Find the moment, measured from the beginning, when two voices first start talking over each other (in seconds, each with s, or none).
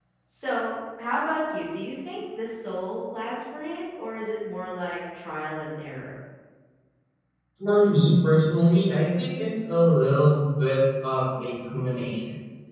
none